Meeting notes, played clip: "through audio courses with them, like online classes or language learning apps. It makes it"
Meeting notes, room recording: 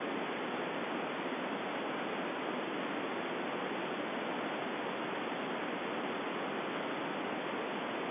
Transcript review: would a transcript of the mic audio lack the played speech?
Yes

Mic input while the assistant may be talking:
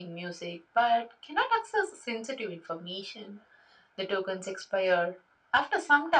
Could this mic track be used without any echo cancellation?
No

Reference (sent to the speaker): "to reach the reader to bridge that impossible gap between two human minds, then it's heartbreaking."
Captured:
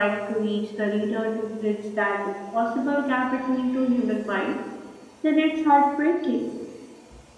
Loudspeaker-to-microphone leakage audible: Yes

